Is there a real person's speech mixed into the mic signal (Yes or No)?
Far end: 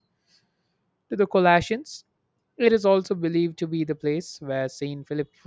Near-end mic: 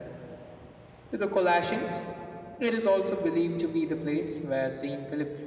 No